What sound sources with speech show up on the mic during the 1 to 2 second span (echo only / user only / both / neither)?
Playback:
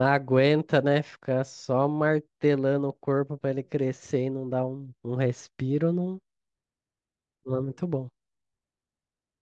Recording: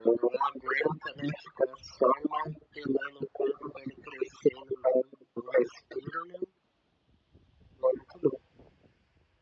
echo only